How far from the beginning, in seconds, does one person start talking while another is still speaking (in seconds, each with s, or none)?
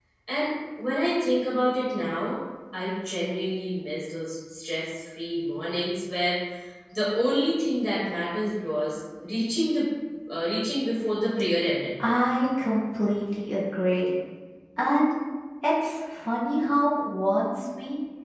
none